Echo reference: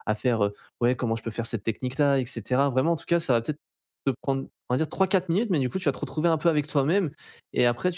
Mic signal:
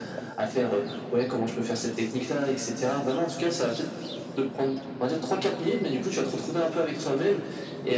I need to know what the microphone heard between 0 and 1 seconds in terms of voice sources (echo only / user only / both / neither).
echo only